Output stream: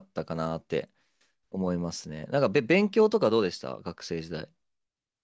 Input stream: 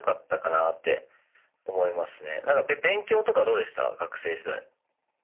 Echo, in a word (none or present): present